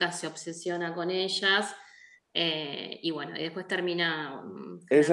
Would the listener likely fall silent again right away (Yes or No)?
No